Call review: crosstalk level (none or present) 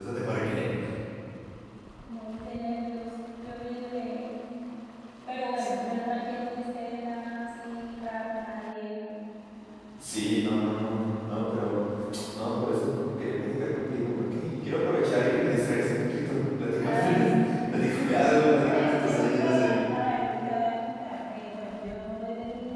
present